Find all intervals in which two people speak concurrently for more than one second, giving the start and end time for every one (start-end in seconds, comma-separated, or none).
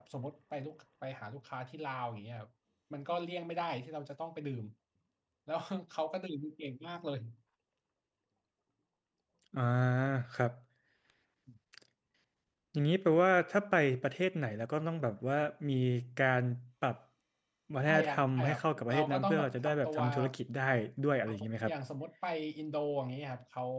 17.9-20.3